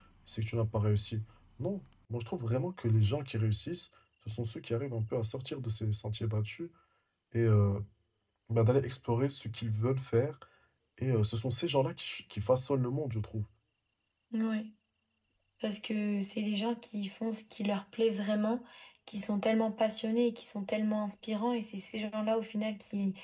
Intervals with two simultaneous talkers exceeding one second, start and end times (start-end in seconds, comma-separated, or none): none